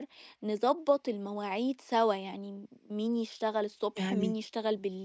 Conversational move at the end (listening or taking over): listening